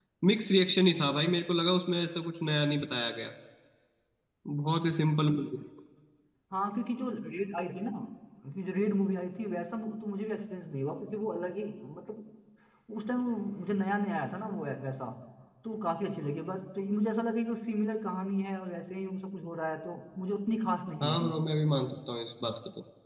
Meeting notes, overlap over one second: none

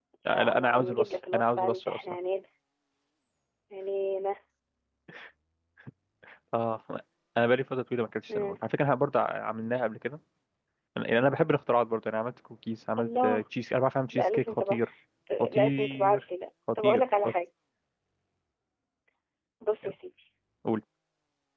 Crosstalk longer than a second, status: present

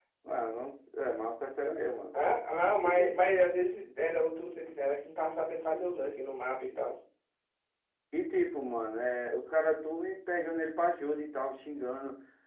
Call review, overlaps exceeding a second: none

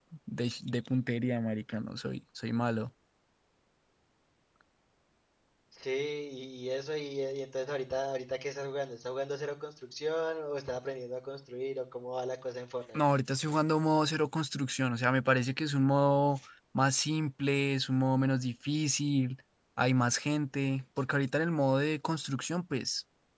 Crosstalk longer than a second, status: none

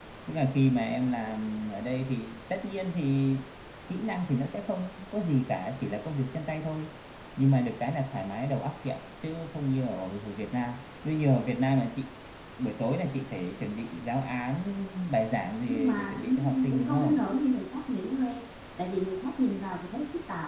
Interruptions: present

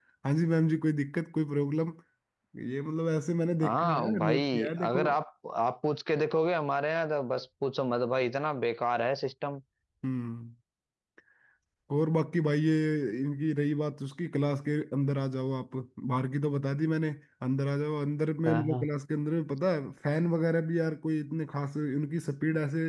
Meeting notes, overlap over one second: present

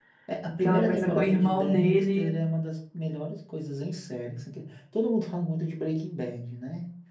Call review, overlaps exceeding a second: present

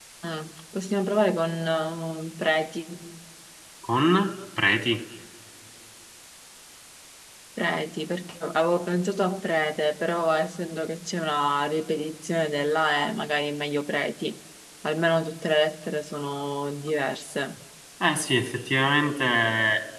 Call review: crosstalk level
none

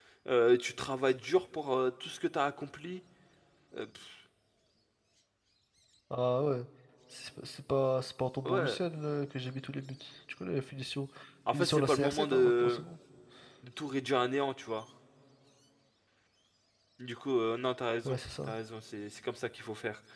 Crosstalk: present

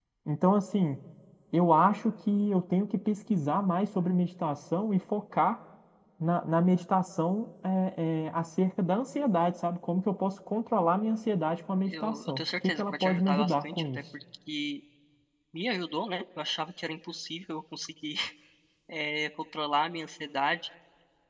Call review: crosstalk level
present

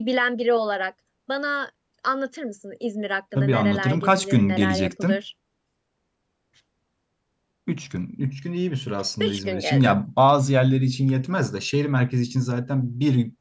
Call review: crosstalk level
present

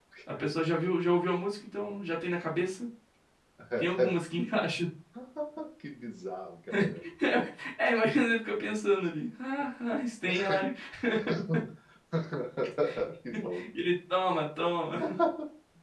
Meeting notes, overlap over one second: none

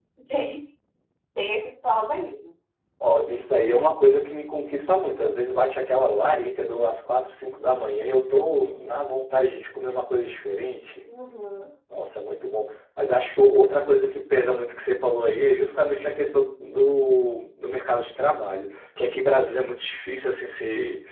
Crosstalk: none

